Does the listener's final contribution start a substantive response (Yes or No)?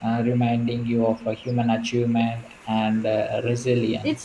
Yes